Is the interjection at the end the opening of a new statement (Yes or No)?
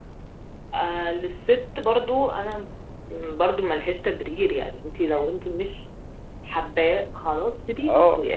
Yes